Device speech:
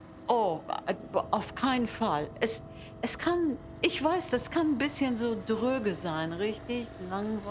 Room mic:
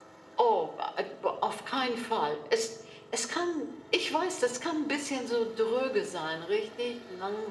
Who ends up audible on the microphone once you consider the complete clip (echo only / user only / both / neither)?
echo only